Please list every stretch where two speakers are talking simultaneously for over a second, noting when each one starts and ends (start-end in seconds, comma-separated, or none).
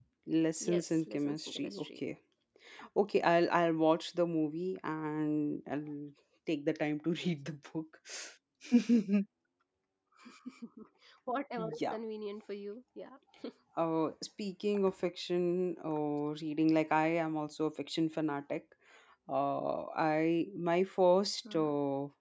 0.6-2.0